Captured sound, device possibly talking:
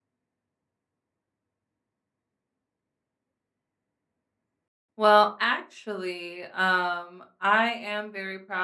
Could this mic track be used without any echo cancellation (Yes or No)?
Yes